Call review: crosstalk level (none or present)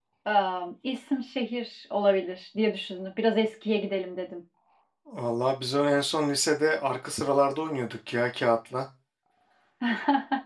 none